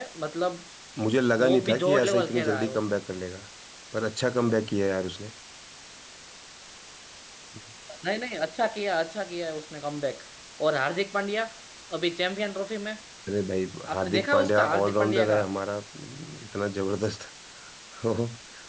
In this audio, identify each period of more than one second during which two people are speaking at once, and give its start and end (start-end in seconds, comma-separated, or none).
1.4-2.8, 13.9-15.4